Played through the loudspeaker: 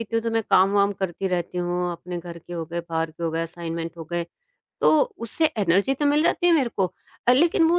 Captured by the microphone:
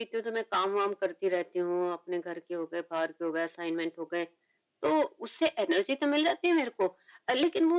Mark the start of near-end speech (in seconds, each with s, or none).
none